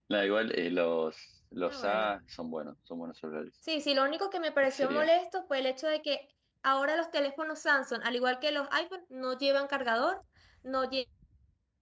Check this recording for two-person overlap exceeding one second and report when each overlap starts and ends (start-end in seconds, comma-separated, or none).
none